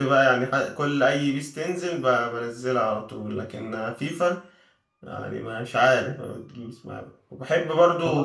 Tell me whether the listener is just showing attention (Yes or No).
No